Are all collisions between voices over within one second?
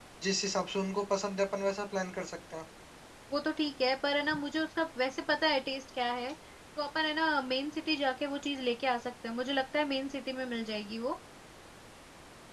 Yes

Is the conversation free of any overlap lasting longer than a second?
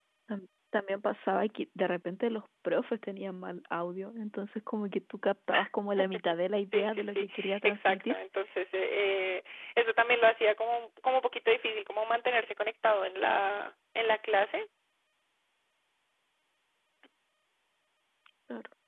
No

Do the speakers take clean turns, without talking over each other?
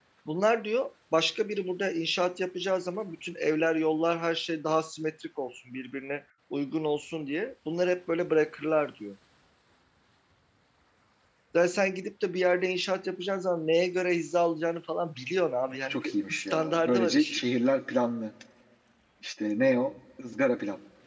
No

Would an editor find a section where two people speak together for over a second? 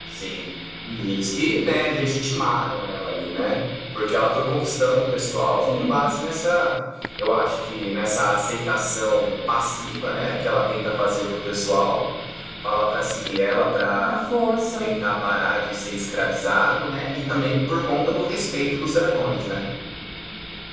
No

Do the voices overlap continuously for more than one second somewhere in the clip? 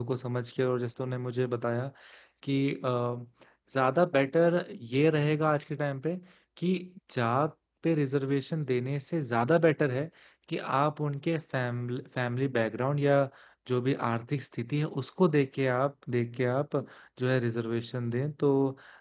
No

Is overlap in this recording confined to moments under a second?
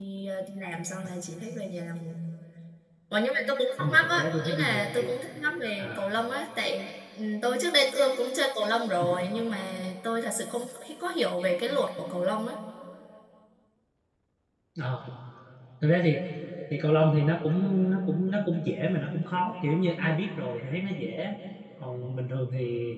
No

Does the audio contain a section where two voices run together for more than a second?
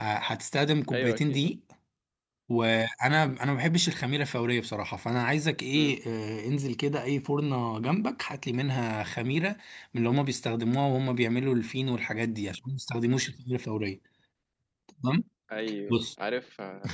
No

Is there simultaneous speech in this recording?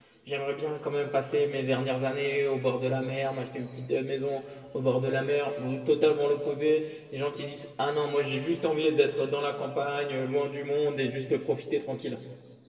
No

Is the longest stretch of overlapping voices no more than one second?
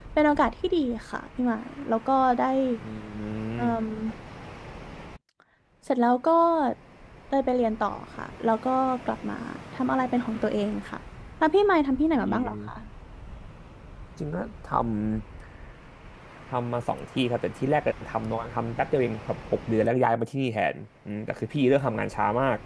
Yes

